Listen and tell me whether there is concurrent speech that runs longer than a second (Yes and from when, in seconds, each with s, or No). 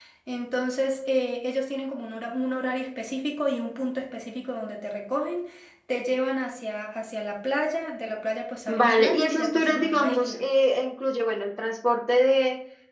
Yes, from 8.7 s